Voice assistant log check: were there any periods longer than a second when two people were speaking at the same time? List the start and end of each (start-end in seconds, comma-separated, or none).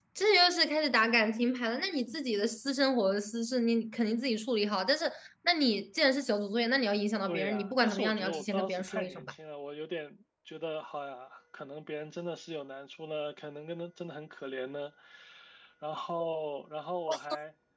7.3-9.3